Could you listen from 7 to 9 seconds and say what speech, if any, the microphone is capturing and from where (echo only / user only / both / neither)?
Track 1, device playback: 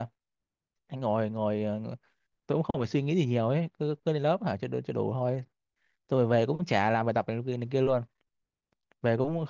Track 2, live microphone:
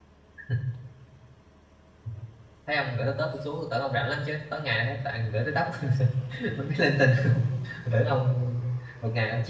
user only